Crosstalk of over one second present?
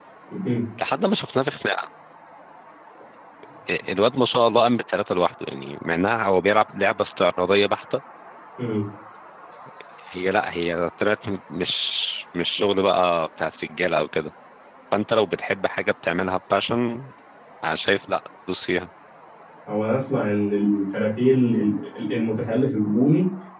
No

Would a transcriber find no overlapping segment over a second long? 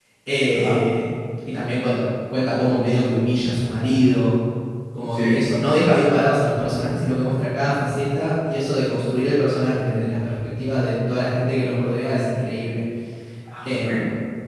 Yes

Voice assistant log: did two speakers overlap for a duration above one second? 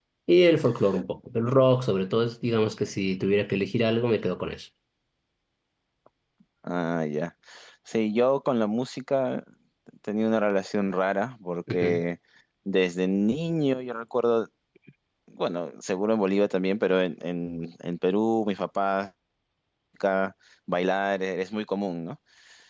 No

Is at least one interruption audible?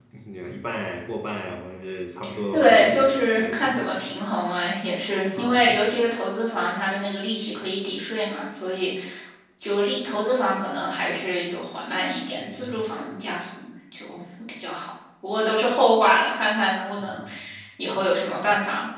Yes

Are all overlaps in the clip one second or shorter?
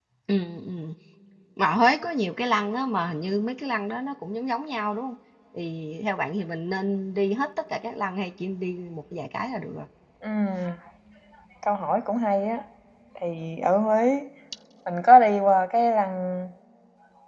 Yes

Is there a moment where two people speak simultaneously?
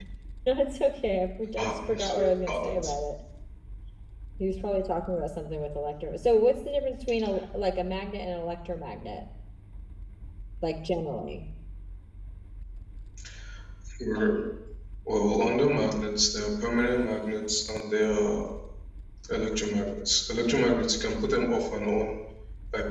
Yes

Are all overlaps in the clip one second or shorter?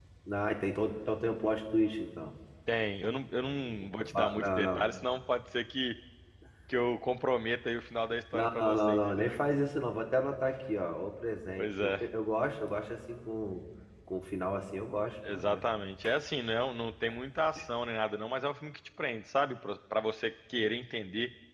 No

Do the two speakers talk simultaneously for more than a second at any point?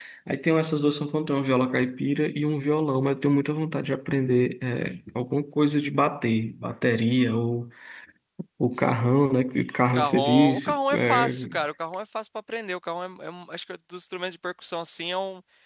Yes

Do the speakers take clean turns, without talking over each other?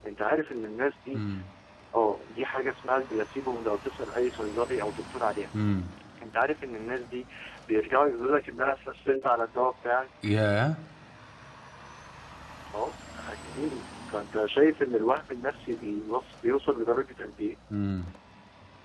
Yes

